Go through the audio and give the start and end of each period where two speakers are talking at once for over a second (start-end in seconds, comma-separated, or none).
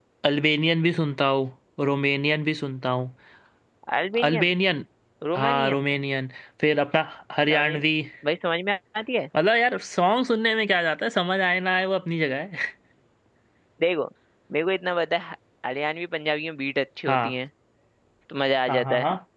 none